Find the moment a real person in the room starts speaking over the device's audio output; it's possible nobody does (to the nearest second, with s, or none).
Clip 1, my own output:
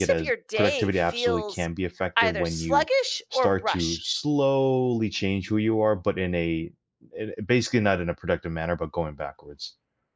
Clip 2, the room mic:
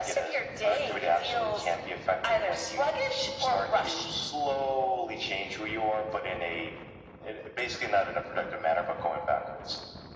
none